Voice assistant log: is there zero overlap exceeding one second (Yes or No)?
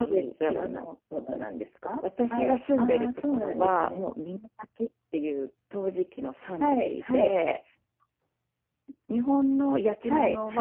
No